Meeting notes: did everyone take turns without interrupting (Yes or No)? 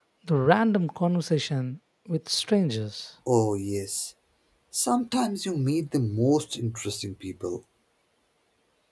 Yes